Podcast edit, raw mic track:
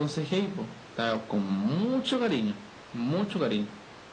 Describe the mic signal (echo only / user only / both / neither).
echo only